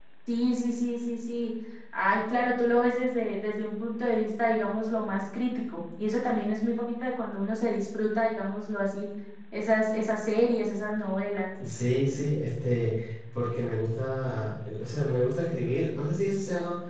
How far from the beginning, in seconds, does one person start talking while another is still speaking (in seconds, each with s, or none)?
none